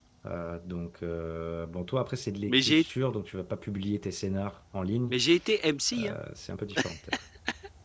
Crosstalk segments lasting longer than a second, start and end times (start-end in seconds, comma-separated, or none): none